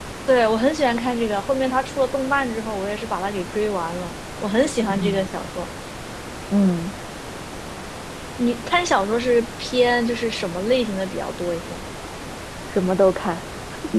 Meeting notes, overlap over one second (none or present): none